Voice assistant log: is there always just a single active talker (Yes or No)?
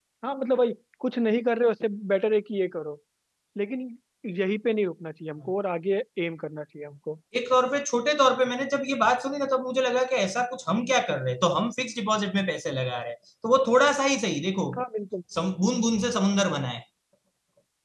Yes